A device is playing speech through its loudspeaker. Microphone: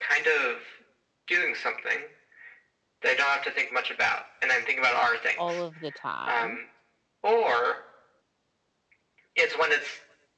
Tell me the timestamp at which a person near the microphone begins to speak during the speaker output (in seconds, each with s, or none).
5.4 s